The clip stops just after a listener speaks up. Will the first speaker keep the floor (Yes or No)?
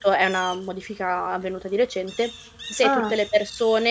Yes